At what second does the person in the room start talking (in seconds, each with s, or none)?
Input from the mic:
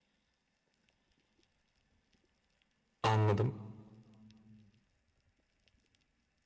3.0 s